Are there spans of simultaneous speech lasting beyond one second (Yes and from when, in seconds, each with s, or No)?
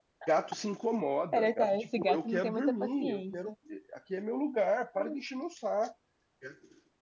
Yes, from 1.3 s